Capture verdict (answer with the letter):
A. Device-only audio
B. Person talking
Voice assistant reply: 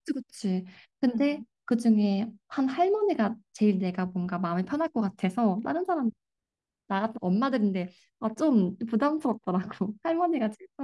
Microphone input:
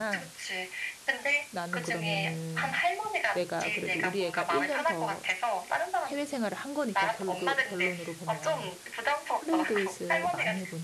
B